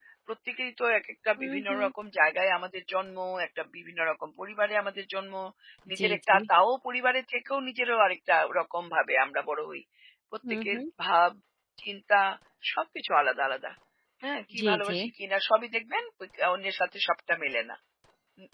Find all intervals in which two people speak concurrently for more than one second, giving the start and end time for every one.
none

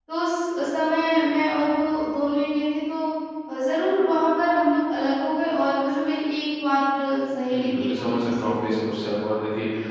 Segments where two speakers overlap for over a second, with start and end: 7.5-9.1

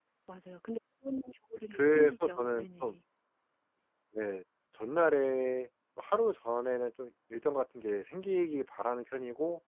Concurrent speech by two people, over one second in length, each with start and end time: 1.7-3.0

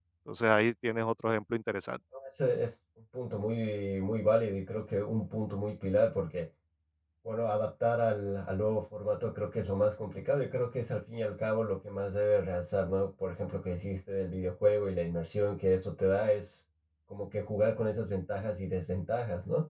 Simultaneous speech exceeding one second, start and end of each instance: none

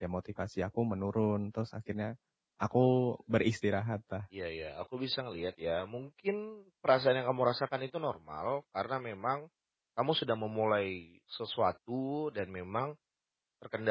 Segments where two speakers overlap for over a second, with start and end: none

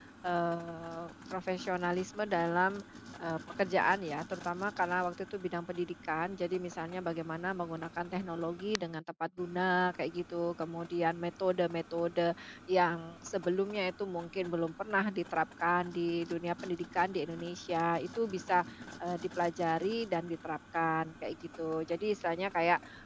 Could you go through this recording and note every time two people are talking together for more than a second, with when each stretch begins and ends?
none

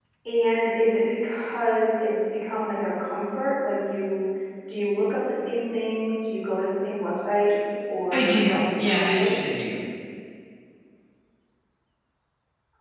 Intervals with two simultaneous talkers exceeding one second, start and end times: 8.1-9.3

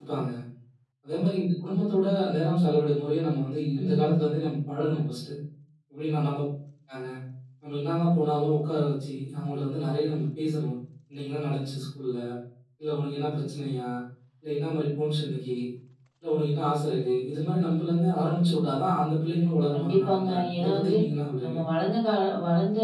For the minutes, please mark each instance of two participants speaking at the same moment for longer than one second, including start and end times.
19.7-20.9

